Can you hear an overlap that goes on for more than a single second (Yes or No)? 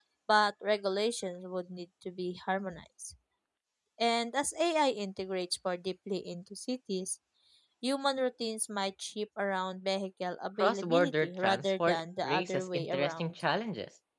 Yes